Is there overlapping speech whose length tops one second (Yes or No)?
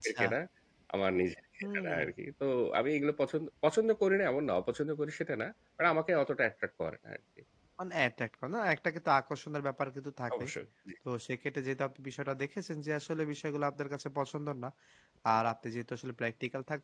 No